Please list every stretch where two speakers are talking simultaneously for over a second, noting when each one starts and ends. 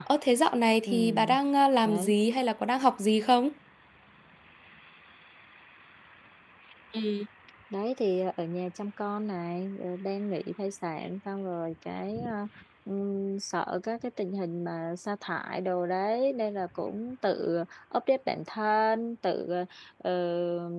none

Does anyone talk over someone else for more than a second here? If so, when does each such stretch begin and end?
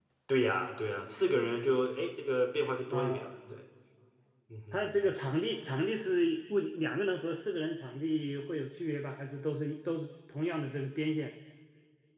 none

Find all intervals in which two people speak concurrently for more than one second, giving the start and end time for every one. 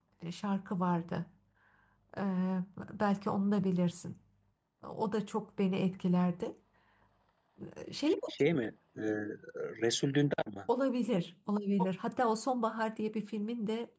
none

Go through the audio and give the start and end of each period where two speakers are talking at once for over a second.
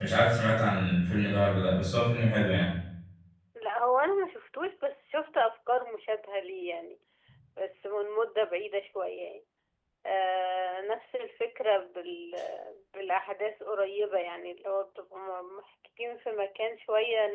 none

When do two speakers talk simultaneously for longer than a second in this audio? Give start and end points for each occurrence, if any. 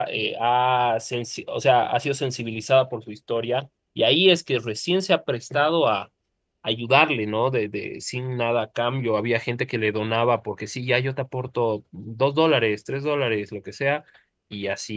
none

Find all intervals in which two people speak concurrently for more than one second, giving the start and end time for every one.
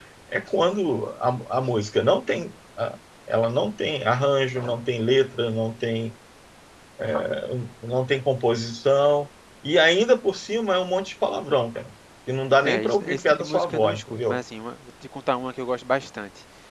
12.6-14.4

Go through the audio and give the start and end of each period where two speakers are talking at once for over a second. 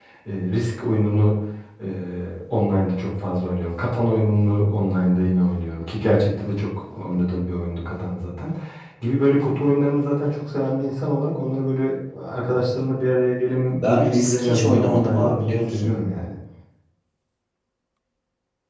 13.7-16.0

